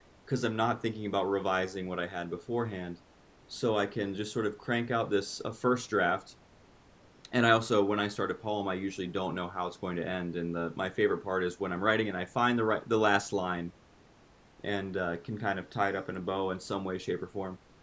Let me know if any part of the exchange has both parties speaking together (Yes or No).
No